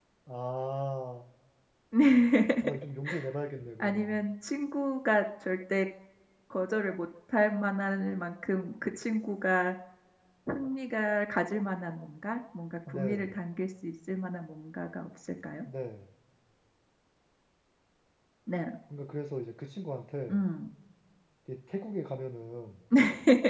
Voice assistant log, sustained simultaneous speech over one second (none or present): none